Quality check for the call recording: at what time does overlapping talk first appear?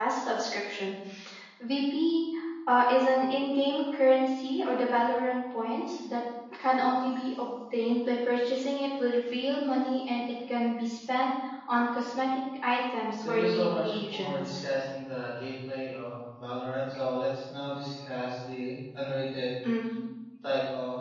13 s

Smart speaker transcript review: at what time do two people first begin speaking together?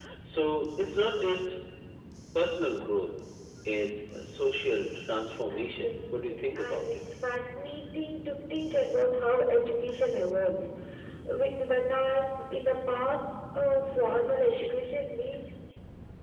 6 s

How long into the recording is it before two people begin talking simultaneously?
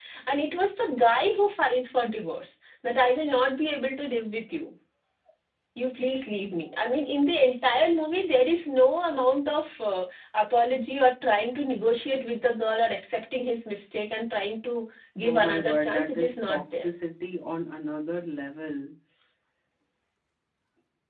15 s

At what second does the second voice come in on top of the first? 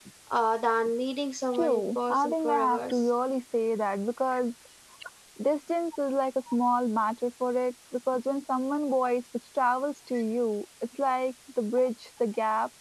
2 s

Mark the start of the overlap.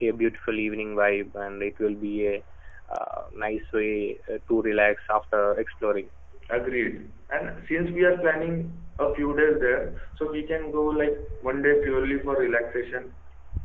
none

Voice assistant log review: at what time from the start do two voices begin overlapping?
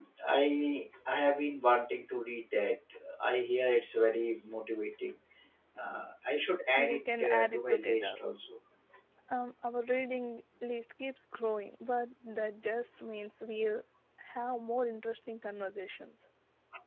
7 s

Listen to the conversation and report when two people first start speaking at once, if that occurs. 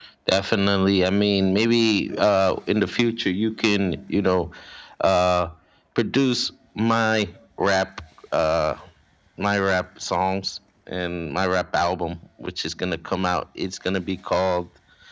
none

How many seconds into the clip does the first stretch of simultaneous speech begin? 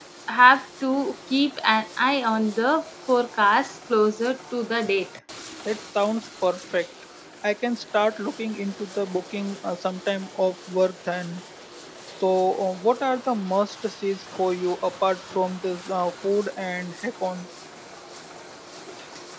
none

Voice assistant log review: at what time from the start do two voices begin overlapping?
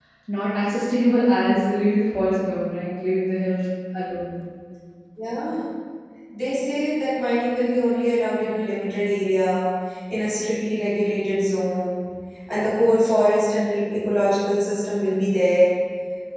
none

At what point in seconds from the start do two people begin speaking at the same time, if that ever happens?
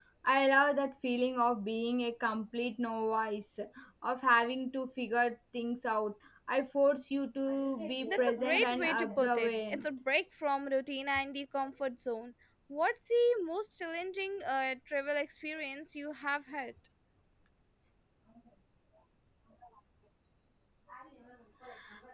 8 s

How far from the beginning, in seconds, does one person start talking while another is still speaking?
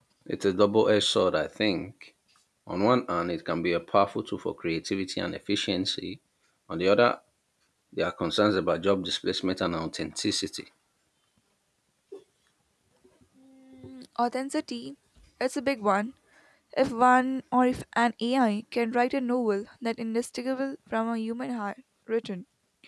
none

